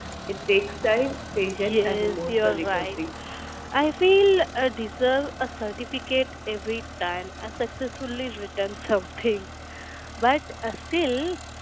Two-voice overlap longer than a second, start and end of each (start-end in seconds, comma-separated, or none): 1.7-3.0